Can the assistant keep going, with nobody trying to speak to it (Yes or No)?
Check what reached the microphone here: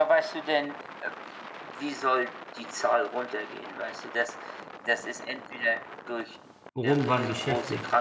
No